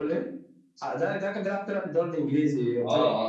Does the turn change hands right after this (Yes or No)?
Yes